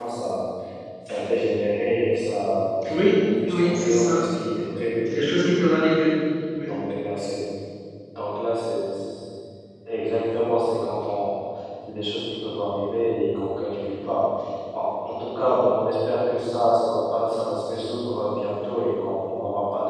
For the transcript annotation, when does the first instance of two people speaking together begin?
2.8 s

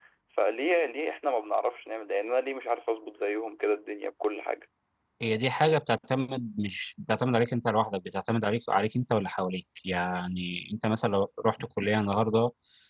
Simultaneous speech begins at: none

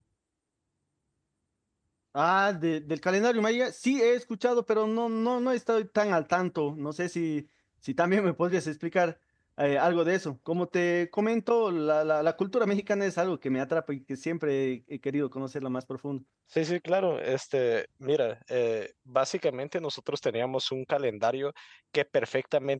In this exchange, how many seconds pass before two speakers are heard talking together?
none

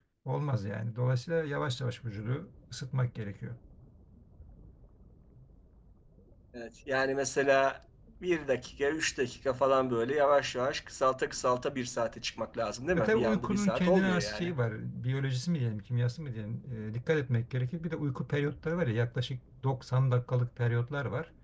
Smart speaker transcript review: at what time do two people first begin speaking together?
12.9 s

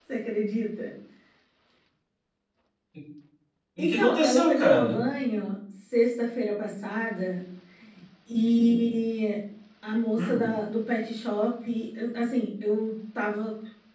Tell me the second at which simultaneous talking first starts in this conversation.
3.8 s

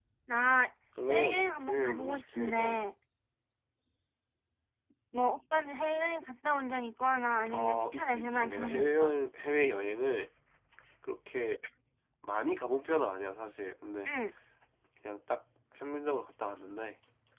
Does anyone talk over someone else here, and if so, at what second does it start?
1.1 s

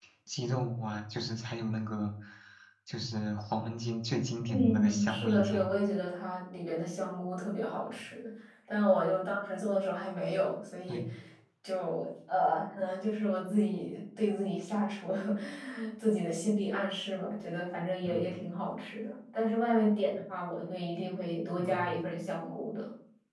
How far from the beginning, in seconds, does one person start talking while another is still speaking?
4.5 s

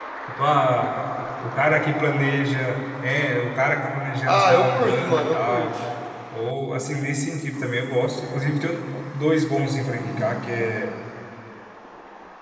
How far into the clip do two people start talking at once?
4.2 s

